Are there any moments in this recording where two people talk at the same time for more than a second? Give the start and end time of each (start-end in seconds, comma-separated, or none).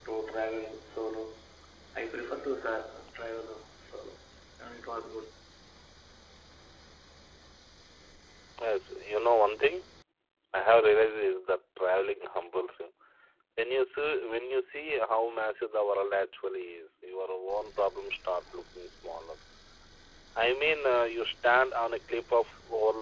none